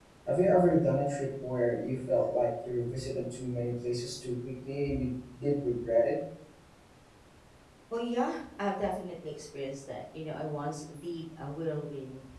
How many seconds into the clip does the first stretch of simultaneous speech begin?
none

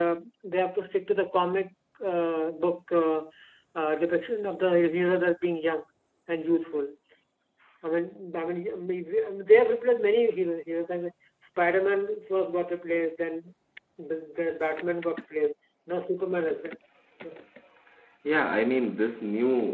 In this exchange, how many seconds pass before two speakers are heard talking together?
none

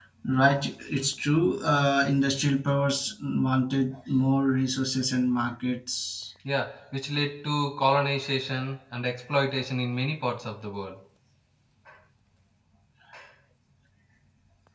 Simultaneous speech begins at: none

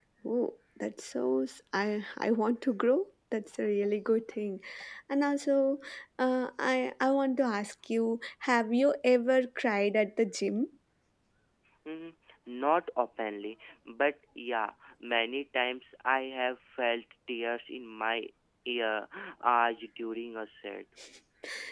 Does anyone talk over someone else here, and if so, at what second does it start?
none

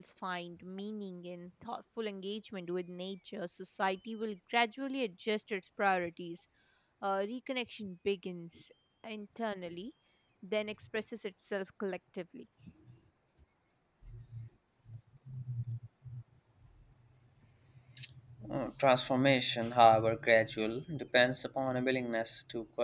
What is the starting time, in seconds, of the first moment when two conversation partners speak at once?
none

